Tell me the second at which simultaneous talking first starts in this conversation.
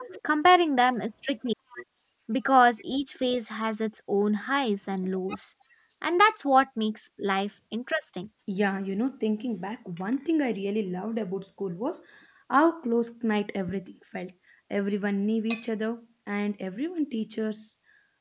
none

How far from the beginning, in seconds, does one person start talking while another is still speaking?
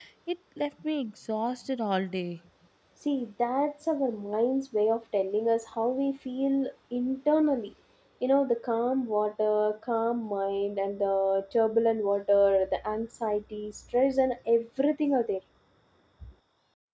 none

